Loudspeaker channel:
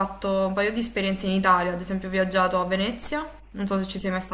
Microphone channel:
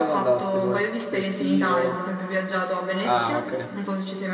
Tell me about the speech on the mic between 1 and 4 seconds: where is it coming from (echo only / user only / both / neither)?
both